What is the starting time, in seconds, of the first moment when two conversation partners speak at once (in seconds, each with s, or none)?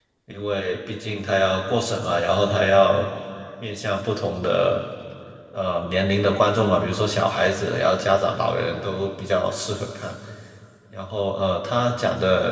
none